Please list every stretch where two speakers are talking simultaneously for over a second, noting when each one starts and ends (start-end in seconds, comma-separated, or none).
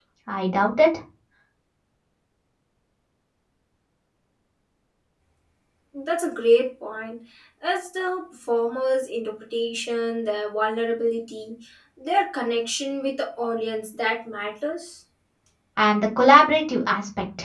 none